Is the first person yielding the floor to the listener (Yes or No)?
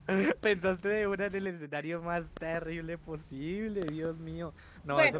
Yes